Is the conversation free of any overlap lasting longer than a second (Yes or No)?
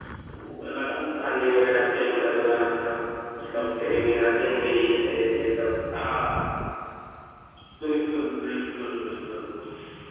Yes